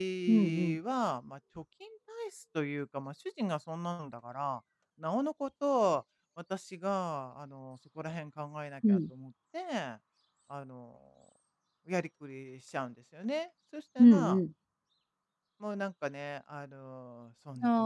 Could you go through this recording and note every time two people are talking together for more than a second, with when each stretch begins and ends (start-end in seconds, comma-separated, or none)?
none